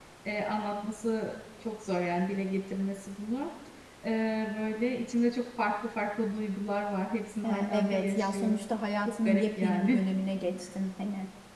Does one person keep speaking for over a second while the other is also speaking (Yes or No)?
Yes